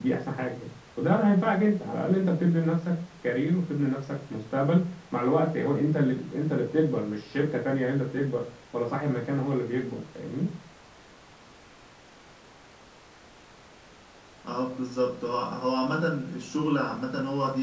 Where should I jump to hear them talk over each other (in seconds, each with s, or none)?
none